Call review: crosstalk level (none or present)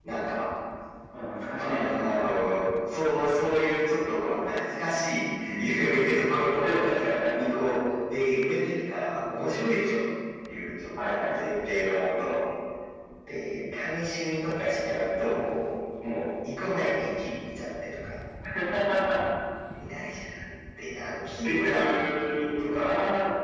present